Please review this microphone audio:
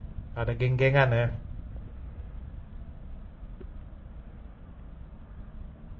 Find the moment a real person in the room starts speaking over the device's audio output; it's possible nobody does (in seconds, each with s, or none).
0.4 s